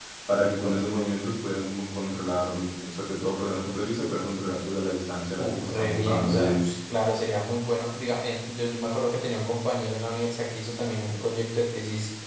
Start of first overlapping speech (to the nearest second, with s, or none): 5 s